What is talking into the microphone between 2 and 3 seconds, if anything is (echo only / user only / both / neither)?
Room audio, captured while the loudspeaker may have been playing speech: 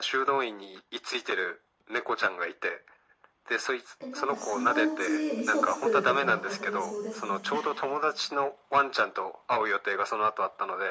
echo only